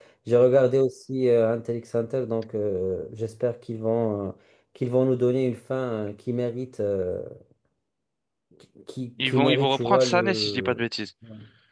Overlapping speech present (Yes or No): Yes